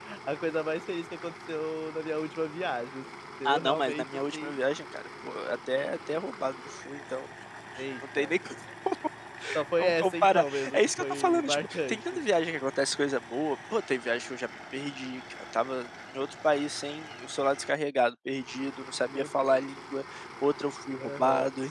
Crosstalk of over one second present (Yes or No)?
Yes